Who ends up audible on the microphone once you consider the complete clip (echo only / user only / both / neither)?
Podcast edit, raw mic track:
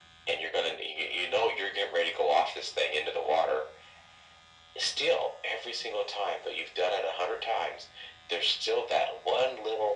echo only